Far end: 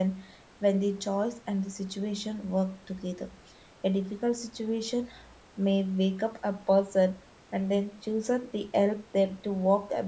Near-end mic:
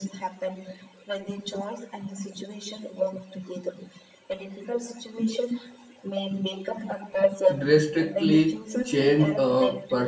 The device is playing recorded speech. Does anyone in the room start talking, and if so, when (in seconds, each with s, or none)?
7.6 s